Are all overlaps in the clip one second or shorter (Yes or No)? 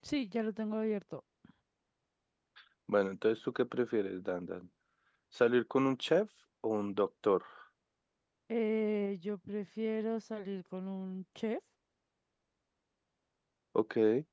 Yes